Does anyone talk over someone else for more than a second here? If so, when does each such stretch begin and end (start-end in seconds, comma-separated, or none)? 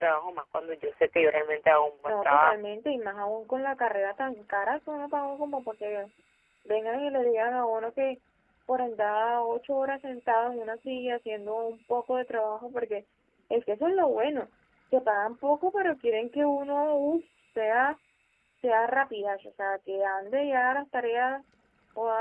none